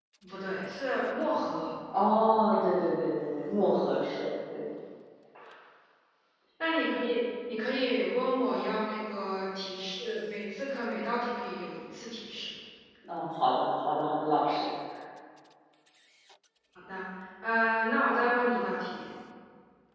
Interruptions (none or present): none